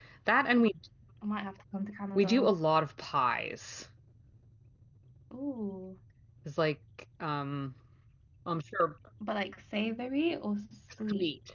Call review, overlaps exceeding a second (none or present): none